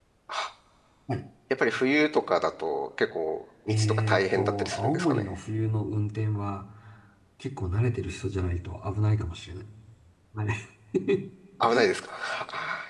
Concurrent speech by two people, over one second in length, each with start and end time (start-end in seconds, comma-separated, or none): 3.7-5.3